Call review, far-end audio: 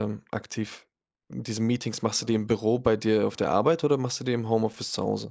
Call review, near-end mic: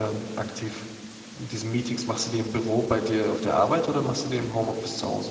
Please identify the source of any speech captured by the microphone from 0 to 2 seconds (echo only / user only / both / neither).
echo only